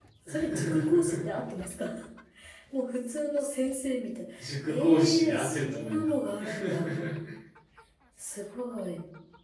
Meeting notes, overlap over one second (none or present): present